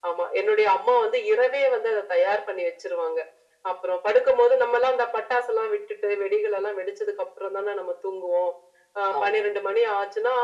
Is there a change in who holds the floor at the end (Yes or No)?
No